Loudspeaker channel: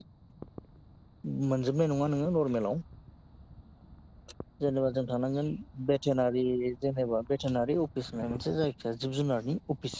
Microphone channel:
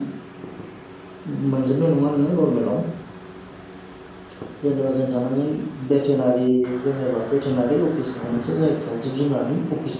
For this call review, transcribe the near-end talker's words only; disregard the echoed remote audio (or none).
none